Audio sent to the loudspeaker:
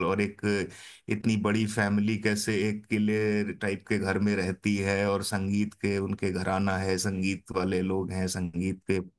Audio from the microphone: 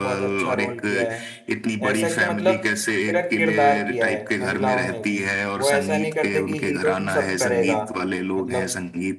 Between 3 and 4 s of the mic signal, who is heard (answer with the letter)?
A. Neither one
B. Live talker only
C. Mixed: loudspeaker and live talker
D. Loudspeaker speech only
C